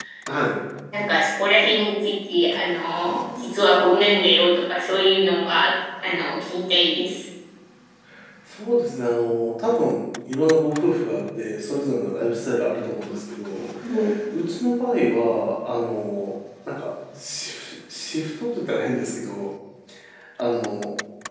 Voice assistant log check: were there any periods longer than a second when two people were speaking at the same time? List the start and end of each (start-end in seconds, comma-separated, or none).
none